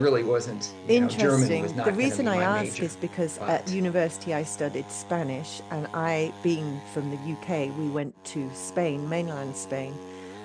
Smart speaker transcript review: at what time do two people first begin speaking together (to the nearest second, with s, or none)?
1 s